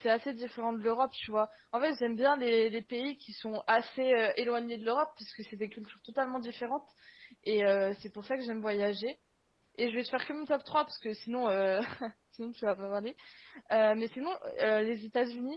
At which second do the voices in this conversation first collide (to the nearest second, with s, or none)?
none